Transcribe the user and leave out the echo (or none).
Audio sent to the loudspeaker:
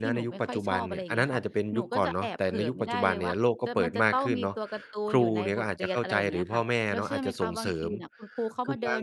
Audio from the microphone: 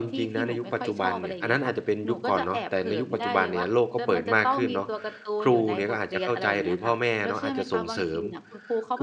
none